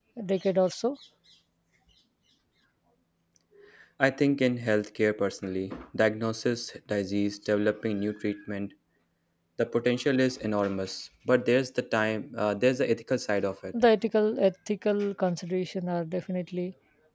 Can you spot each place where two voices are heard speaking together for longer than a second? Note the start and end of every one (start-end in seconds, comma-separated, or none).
none